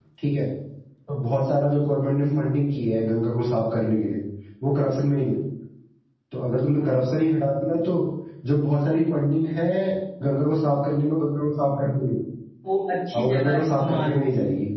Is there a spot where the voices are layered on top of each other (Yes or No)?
Yes